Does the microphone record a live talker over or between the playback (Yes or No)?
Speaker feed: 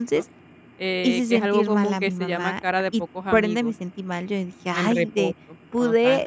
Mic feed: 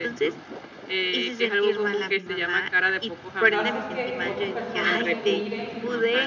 Yes